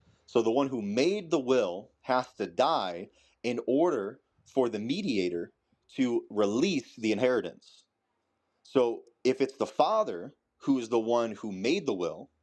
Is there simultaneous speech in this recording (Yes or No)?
No